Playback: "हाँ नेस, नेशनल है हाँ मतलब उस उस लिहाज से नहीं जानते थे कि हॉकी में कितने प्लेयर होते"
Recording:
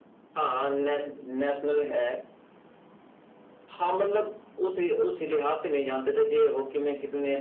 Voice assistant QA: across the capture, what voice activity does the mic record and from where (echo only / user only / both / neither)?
echo only